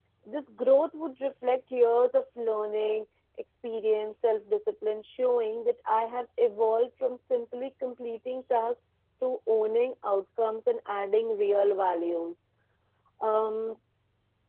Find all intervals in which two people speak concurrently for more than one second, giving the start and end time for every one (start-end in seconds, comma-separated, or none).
none